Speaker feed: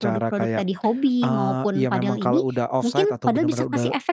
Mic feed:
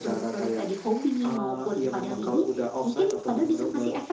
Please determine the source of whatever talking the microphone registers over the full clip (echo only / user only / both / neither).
echo only